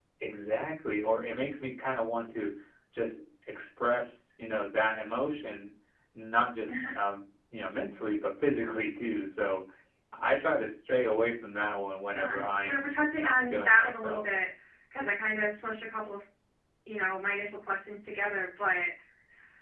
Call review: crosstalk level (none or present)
present